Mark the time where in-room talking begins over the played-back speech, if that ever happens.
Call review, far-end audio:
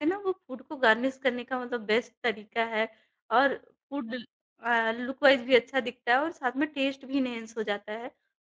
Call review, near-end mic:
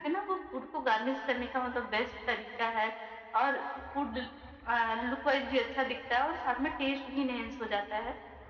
none

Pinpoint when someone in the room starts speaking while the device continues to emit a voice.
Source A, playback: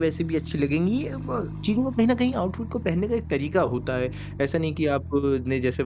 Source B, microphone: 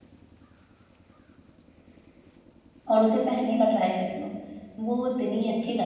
2.9 s

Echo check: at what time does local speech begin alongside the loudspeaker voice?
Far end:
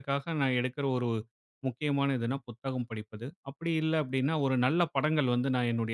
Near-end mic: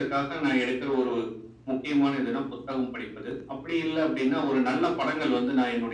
none

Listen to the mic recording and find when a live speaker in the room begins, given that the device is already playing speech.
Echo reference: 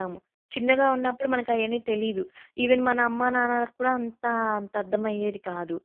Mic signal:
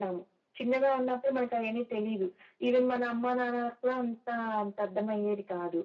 none

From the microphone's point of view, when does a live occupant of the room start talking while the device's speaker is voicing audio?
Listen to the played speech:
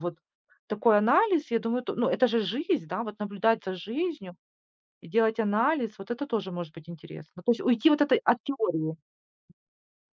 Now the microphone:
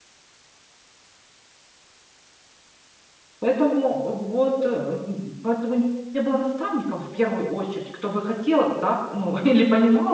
3.4 s

